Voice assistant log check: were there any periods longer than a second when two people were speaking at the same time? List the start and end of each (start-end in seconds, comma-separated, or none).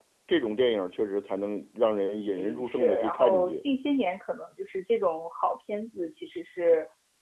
2.3-3.5